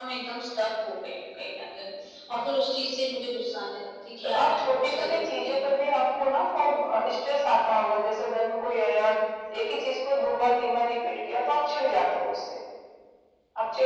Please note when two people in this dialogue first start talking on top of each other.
4 s

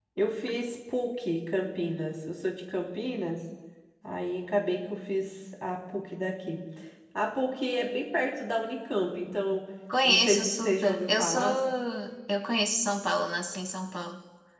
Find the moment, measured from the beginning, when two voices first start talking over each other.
10 s

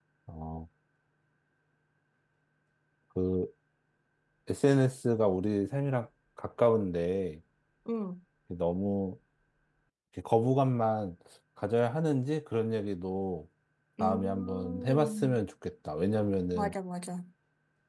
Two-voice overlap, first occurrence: 14 s

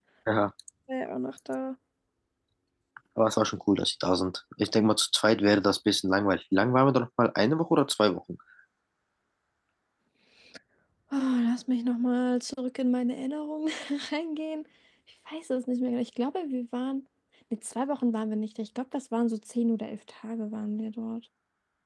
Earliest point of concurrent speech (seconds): none

